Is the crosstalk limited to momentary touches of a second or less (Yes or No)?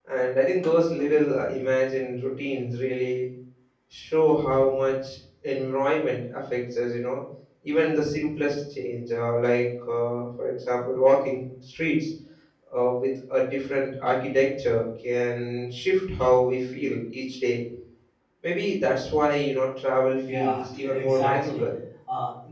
No